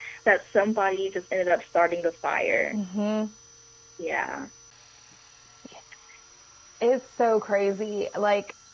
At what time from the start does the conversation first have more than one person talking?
none

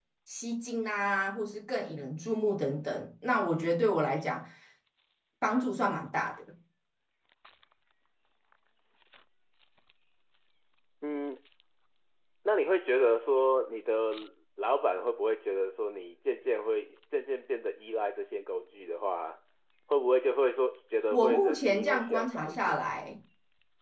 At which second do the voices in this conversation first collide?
21 s

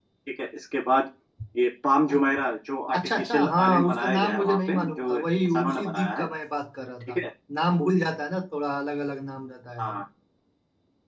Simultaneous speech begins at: 3 s

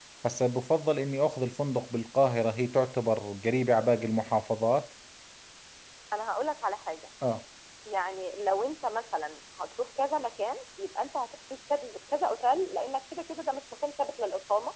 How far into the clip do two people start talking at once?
none

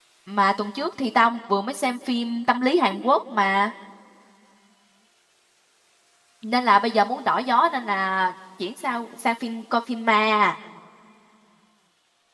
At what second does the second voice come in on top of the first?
none

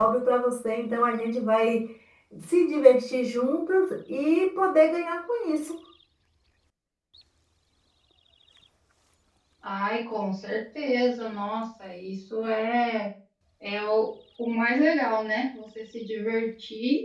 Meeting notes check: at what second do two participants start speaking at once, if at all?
none

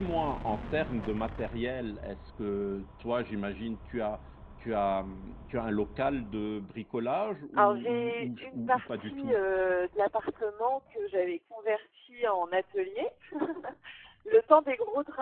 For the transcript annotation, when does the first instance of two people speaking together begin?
8 s

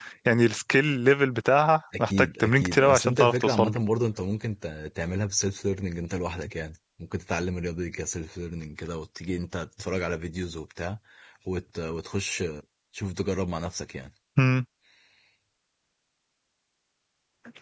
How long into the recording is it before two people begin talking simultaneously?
2 s

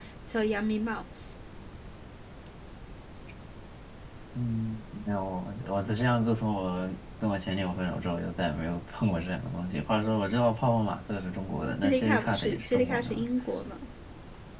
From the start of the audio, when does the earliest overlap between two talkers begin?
12 s

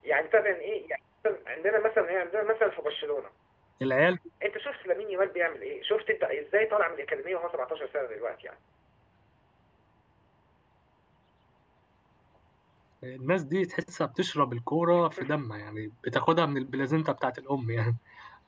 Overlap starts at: none

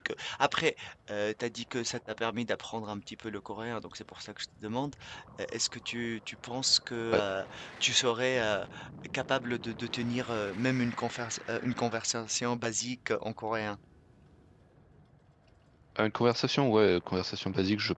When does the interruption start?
none

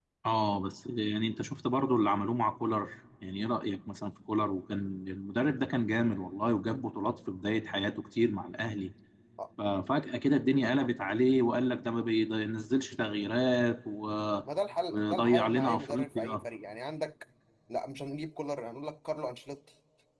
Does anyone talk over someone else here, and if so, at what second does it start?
15 s

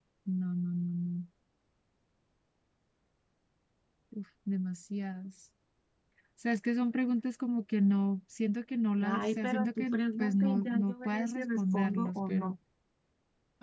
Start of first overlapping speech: 9 s

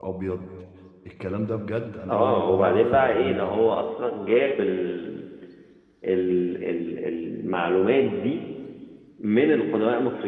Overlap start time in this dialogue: 2 s

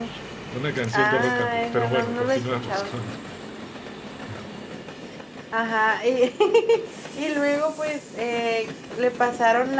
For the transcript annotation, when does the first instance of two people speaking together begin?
1 s

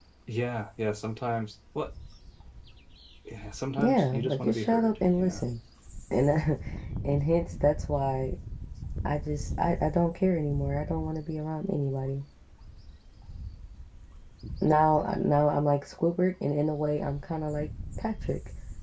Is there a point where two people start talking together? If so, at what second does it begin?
4 s

